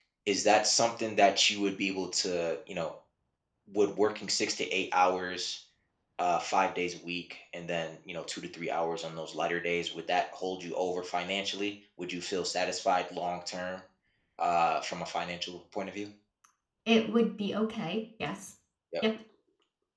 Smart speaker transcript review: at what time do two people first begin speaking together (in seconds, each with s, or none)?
none